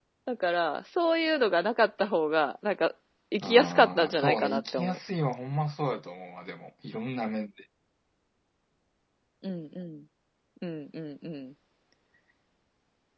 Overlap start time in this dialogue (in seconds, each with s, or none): 3.4 s